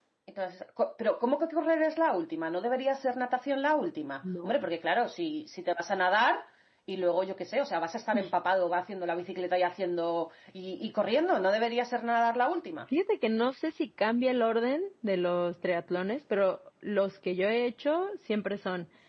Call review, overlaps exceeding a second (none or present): none